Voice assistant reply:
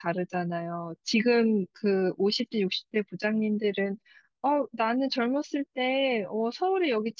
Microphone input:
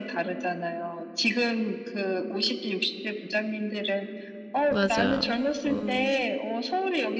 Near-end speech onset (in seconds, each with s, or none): 4.7 s